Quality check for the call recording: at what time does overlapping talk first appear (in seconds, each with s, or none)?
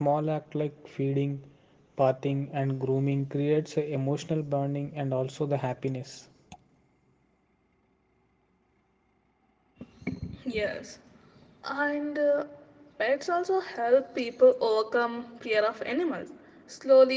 none